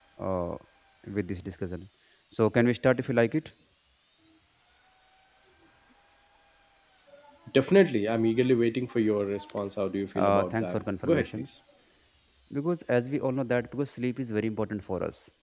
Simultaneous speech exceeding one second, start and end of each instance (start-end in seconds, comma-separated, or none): 10.2-11.5